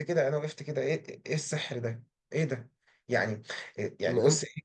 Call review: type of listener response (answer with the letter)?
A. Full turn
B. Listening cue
B